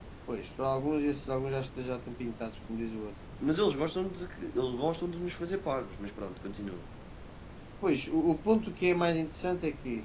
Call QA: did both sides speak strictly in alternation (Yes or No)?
Yes